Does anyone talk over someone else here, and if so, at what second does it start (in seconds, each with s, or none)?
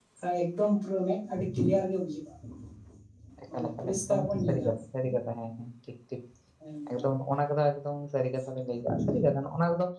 3.5 s